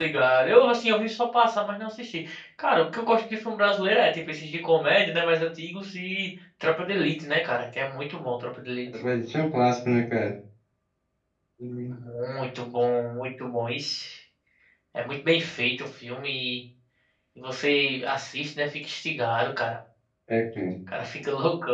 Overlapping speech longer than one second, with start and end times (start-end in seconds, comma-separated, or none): none